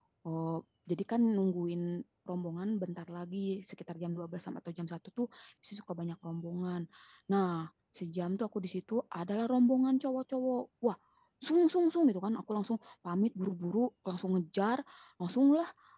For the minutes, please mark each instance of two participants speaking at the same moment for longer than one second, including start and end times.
none

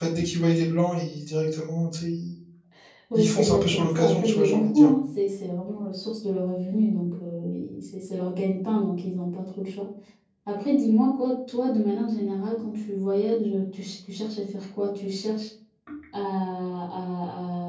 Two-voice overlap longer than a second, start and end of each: 3.2-4.9

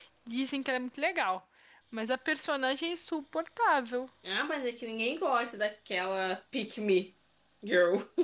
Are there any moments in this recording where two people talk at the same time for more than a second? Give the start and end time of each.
none

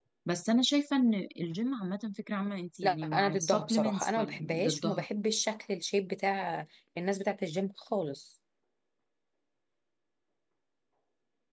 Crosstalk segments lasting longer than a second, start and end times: 2.8-5.0

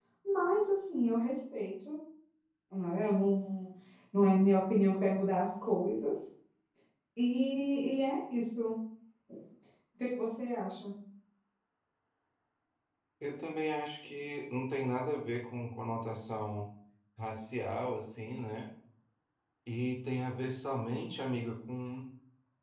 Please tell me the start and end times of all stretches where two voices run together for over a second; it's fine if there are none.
none

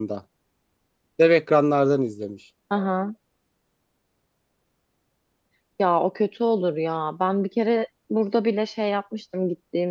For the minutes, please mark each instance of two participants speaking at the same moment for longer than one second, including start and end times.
none

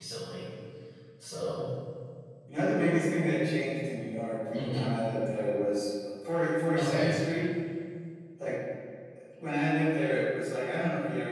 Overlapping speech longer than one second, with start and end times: none

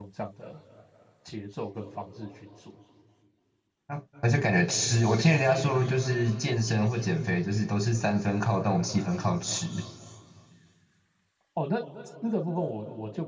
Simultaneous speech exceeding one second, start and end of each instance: none

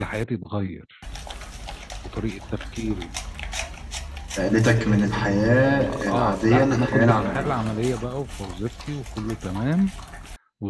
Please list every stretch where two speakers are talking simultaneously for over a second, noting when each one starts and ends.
6.1-7.6

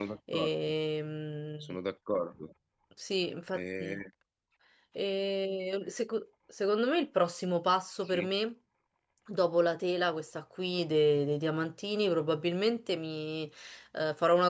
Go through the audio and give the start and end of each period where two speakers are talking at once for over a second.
none

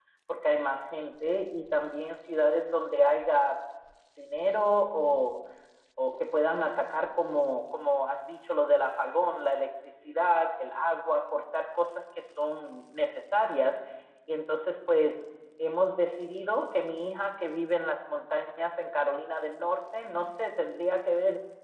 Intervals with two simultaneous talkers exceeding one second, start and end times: none

